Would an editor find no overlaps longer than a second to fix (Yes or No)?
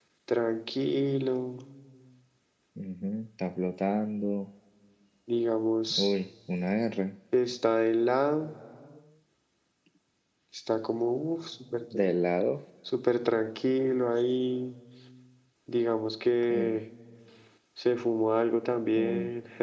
Yes